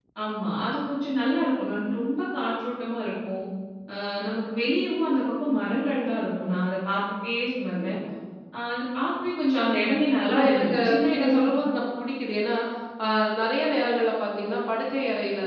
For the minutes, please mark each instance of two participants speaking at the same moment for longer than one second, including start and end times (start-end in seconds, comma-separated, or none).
10.3-11.5